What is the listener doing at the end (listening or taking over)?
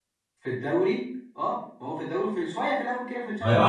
taking over